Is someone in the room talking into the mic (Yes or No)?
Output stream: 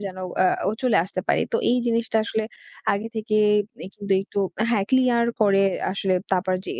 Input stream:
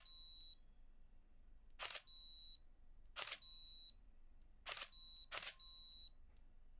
No